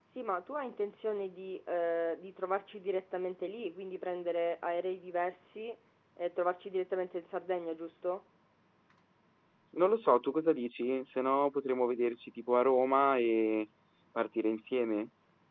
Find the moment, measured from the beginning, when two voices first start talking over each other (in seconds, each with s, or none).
none